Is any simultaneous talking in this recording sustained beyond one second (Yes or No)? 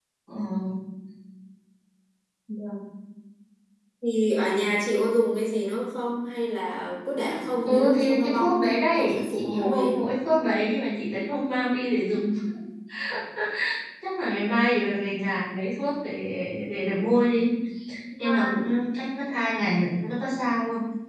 Yes